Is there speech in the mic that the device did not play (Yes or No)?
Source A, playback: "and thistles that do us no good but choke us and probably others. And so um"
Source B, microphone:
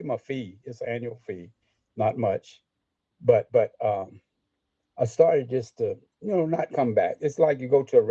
Yes